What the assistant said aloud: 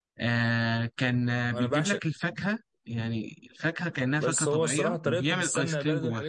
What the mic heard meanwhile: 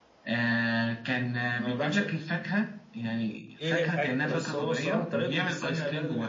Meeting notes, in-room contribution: present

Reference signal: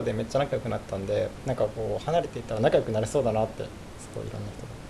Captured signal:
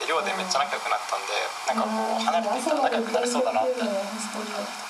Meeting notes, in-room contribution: present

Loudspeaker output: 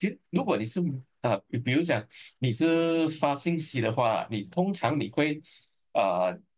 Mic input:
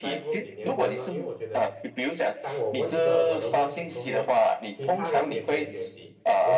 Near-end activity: present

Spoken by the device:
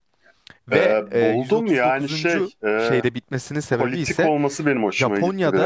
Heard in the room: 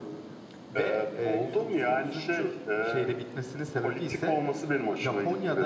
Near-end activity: none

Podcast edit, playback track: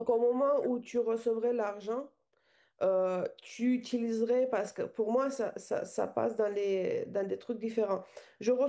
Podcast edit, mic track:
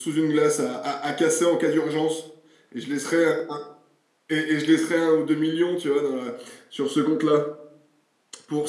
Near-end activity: present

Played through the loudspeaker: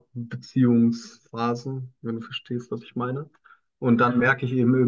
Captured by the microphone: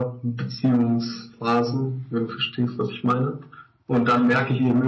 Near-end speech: none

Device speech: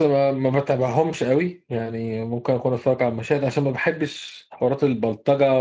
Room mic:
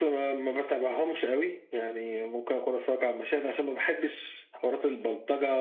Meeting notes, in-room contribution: none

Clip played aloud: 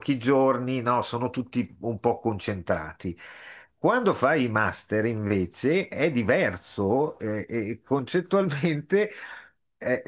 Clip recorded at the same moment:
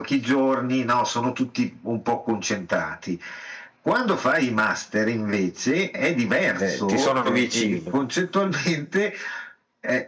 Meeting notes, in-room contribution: present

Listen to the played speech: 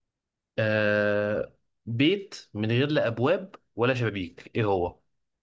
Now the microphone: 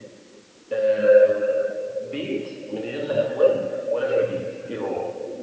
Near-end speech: none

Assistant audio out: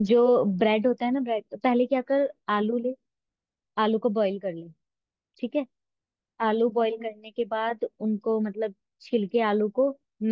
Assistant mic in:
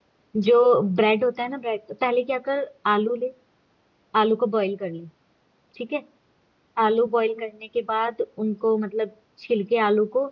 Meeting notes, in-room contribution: none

